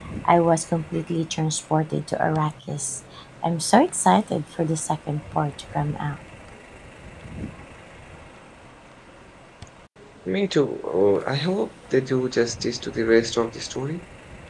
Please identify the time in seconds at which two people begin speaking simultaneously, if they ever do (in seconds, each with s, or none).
none